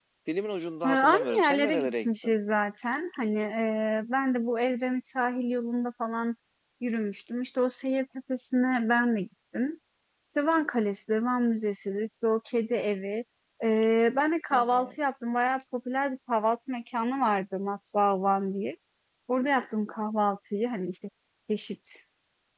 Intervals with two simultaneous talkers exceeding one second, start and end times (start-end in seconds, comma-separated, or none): 0.9-2.3